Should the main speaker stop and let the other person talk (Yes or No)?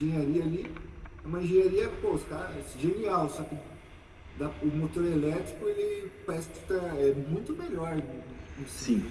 Yes